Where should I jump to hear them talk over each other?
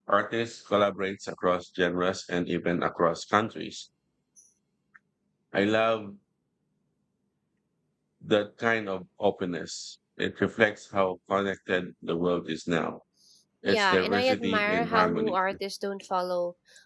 13.6 s

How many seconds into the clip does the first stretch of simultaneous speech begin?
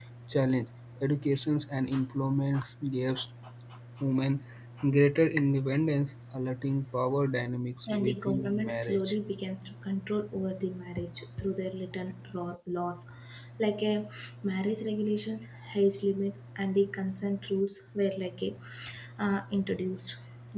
7.9 s

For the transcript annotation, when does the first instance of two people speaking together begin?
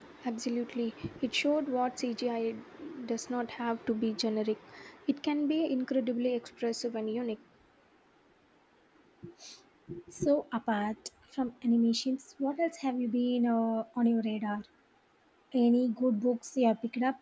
none

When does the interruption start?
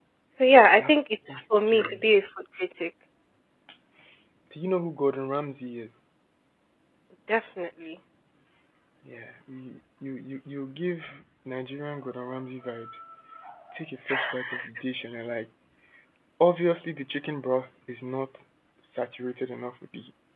0.8 s

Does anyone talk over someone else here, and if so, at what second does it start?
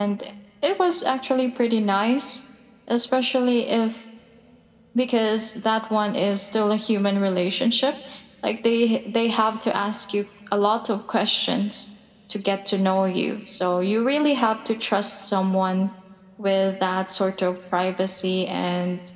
none

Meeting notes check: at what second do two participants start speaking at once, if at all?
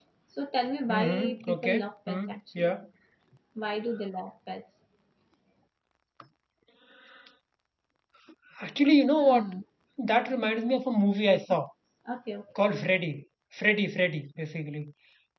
0.9 s

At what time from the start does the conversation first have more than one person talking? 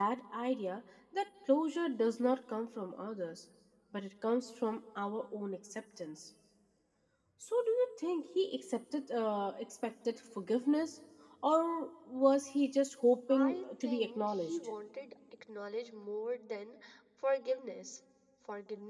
13.3 s

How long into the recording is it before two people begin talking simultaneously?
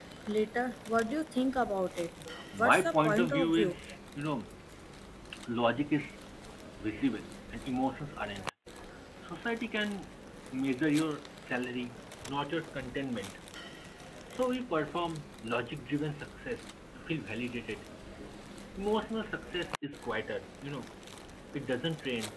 2.6 s

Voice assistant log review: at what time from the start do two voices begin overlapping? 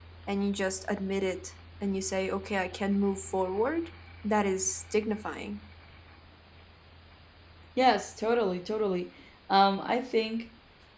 none

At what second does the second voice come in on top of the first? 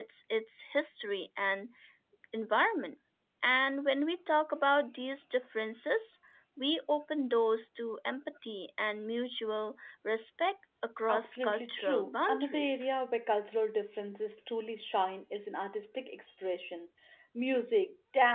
11.1 s

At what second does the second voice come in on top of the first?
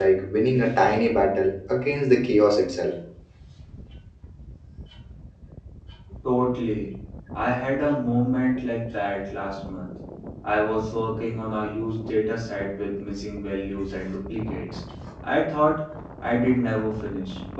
none

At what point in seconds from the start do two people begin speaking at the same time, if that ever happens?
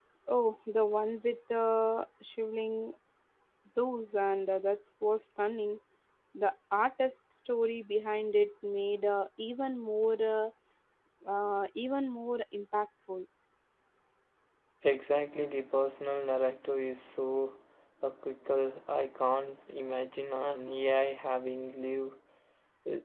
none

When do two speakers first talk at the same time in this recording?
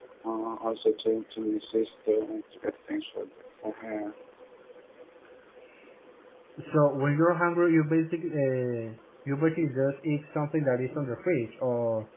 none

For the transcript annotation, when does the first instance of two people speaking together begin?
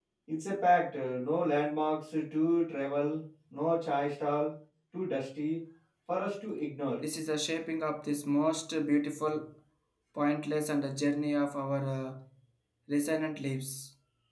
none

